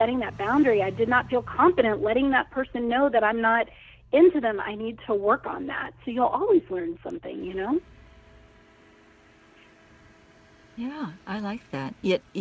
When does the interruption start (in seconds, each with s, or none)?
none